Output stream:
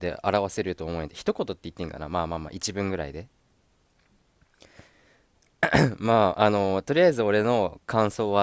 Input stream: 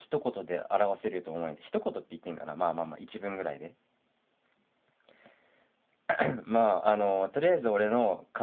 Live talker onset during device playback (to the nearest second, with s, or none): none